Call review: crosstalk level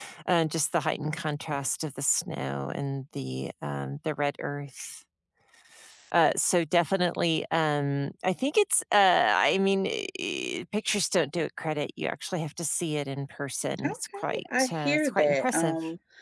present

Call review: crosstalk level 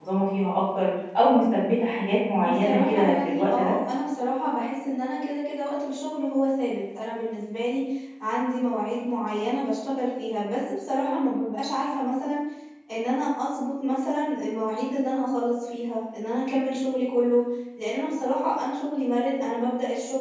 present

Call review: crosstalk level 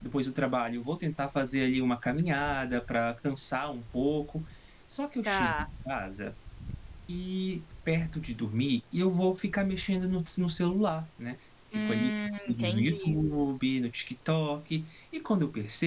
present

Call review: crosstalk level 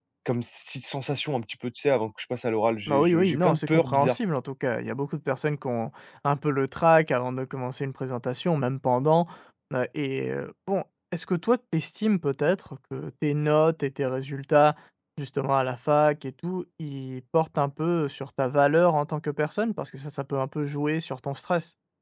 present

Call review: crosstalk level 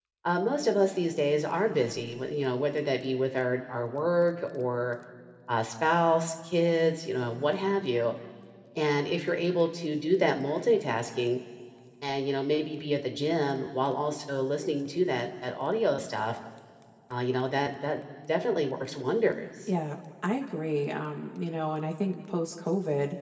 none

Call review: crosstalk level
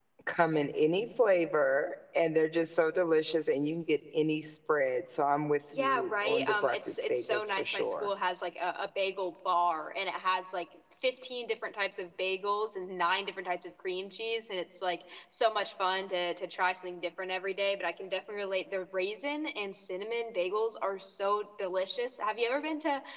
present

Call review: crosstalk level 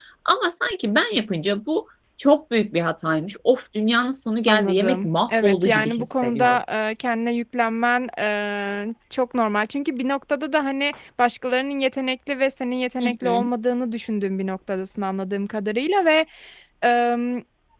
present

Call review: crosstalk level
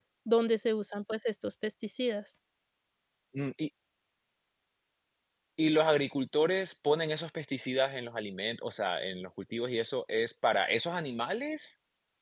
none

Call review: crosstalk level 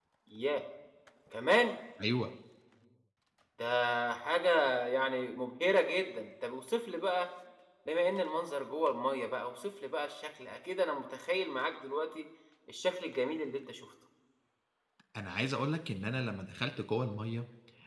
none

